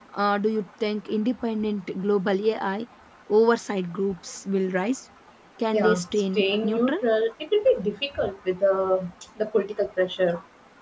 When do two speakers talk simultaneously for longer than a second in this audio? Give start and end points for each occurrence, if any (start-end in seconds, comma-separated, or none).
5.7-7.0